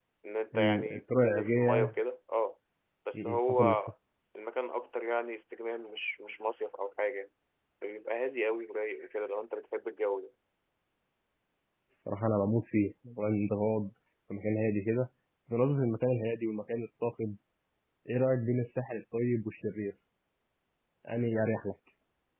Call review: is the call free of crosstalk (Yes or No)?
No